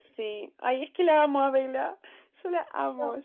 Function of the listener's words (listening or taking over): taking over